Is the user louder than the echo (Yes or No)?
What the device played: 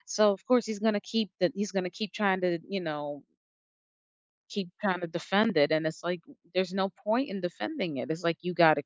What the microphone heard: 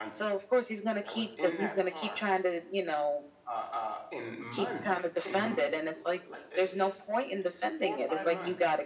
No